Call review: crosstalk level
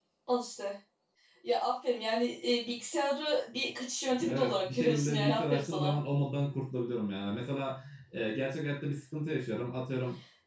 present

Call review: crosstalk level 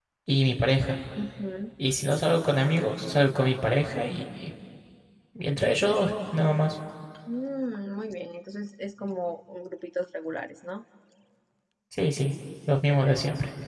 none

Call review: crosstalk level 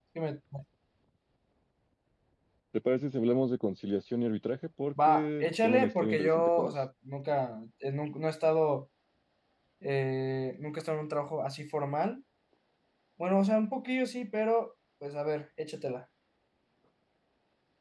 present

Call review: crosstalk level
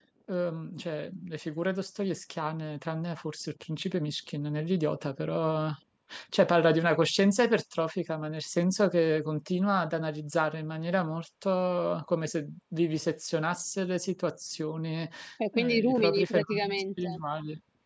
present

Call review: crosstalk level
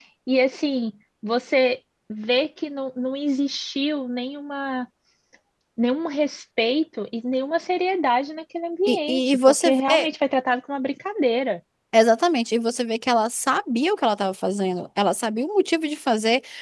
present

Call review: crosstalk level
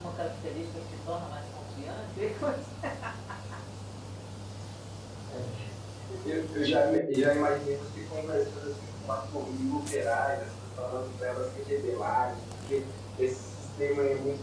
none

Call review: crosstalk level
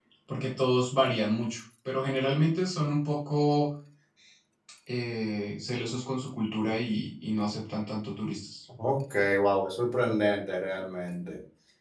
none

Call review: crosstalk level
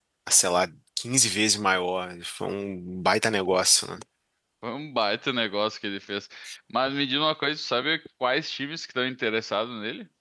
none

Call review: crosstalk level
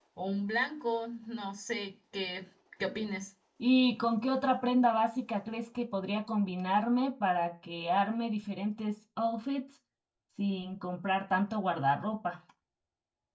none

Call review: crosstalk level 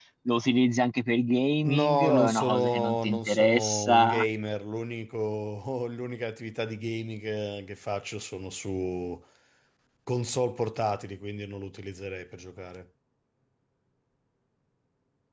present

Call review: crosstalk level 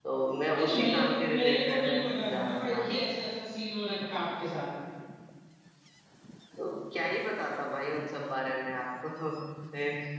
present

